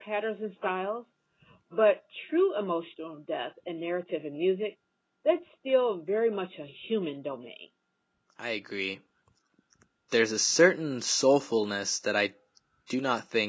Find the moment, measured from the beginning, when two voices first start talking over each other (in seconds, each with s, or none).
none